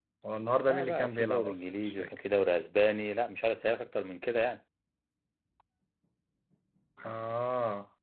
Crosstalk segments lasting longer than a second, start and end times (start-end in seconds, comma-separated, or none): 0.7-2.1